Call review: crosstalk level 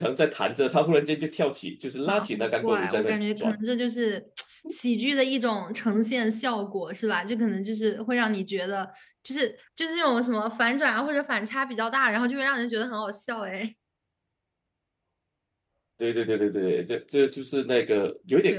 present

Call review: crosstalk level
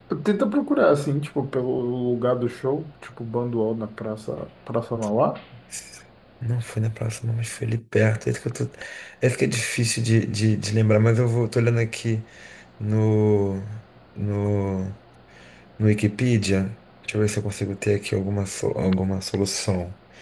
none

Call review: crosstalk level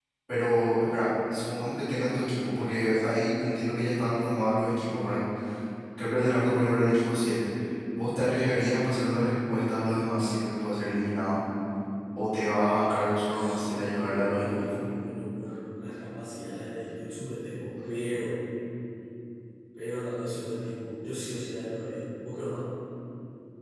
present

